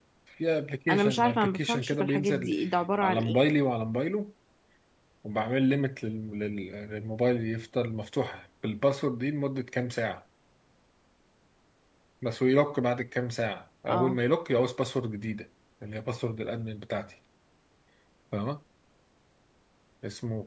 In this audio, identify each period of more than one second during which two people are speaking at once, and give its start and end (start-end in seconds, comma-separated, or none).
0.9-2.5